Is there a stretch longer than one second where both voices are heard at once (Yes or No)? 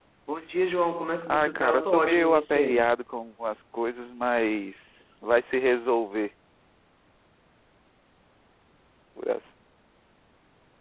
Yes